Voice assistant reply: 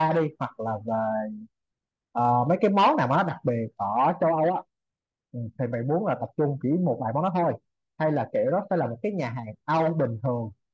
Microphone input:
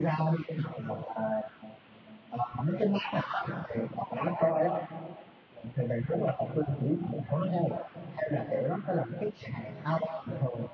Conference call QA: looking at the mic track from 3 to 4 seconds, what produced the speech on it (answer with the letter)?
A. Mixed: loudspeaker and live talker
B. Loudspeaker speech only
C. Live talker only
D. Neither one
B